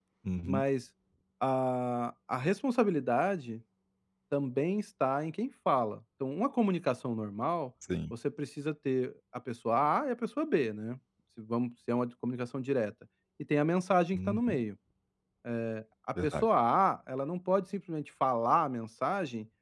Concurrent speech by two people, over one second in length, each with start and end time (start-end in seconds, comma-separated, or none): none